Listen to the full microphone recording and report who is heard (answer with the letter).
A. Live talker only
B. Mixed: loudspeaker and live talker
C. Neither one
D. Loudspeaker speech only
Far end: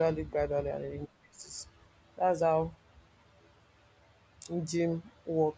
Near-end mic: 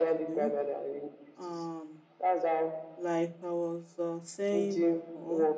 B